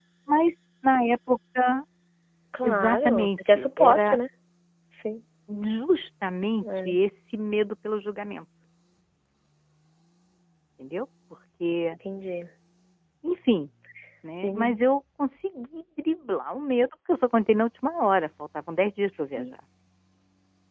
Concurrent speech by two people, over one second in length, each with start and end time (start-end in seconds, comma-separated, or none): 2.6-4.2